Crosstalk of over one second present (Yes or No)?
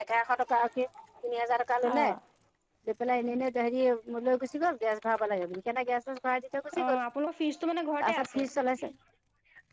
No